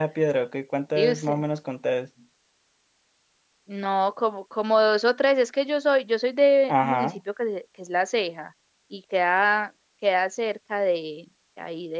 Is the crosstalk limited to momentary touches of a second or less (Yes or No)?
Yes